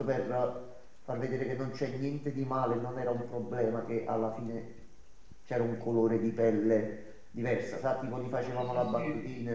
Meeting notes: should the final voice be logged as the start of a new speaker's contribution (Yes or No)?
No